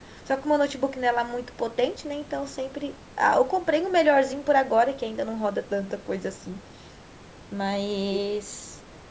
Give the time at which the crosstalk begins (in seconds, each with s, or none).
none